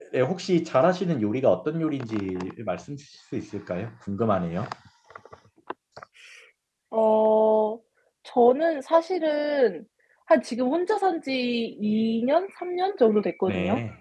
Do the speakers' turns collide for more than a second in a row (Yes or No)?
No